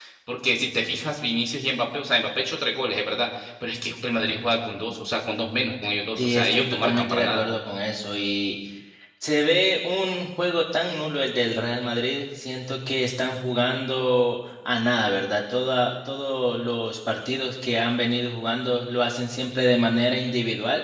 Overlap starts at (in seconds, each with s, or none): 6.2 s